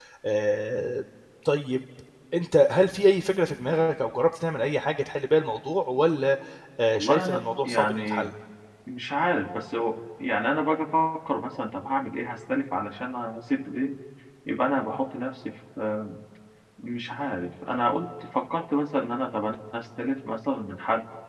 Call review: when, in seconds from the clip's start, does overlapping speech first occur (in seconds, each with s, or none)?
6.9 s